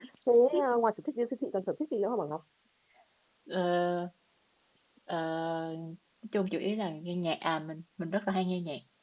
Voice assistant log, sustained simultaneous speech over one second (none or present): none